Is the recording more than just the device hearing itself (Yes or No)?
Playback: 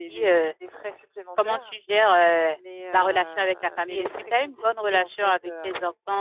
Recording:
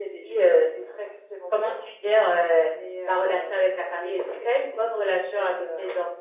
No